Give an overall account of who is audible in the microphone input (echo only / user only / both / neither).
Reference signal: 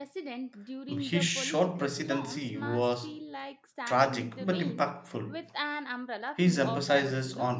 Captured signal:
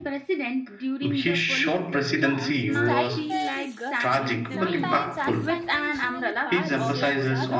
both